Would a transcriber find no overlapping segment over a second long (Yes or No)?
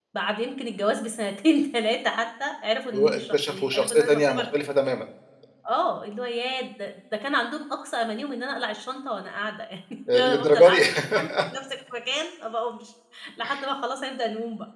No